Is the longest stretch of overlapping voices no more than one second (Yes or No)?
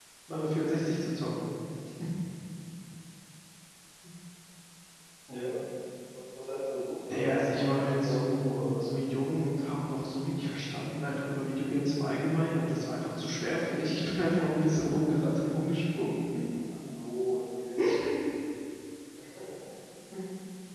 No